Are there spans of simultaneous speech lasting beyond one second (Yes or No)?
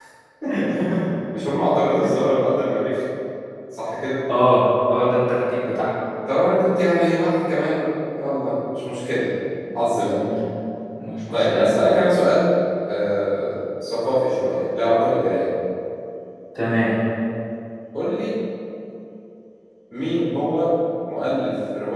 No